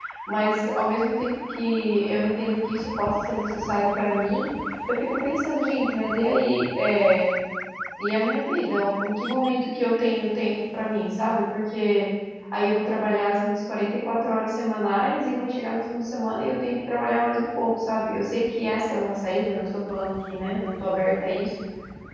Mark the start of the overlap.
none

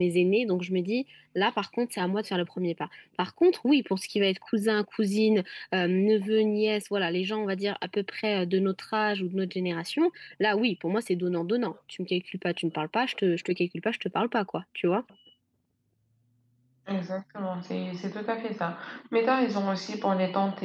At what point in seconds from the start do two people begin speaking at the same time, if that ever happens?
none

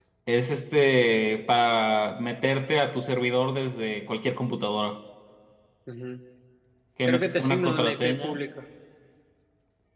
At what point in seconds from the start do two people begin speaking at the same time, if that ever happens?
7.0 s

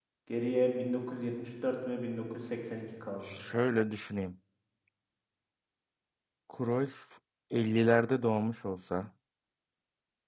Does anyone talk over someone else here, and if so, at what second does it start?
none

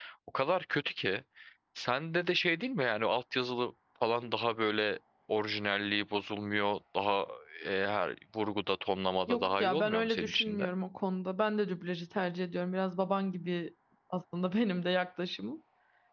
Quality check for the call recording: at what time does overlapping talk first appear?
9.3 s

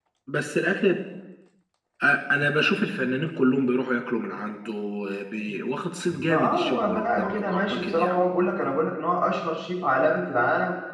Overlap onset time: 6.1 s

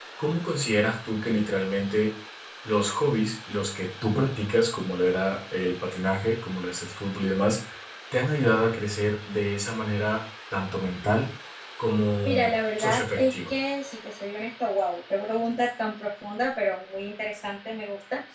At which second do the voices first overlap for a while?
12.2 s

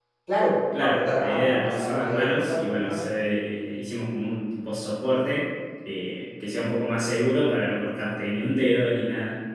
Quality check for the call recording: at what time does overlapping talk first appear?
0.8 s

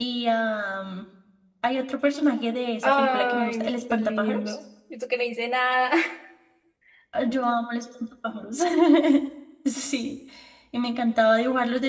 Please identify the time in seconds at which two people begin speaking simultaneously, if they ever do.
2.8 s

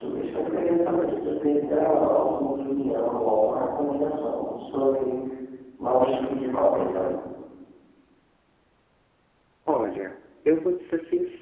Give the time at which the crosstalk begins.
none

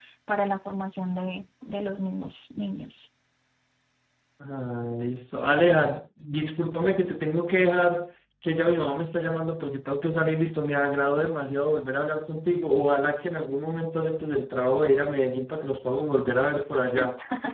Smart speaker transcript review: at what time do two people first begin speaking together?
none

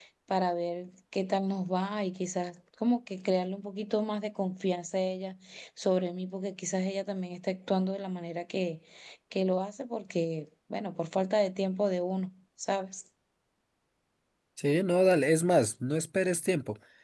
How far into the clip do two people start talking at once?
none

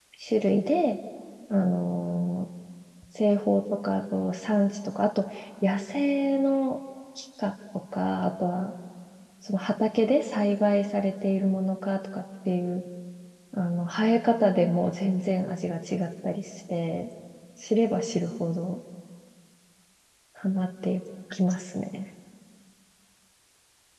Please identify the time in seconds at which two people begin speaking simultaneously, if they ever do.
none

